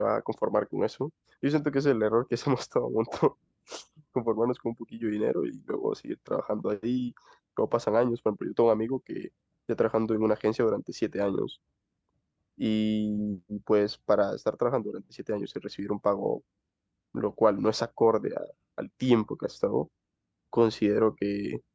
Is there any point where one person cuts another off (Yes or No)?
No